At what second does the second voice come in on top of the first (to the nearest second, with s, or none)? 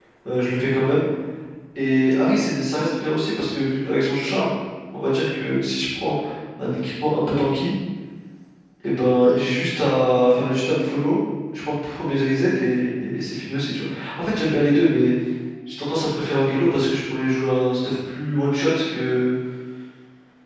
none